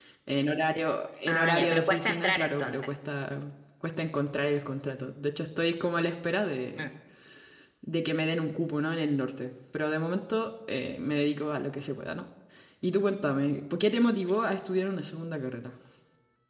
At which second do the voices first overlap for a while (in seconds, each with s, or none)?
1.3 s